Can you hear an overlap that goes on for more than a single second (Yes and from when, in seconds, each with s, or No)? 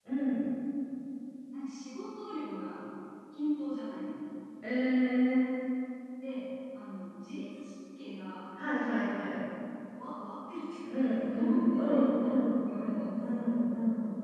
Yes, from 10.9 s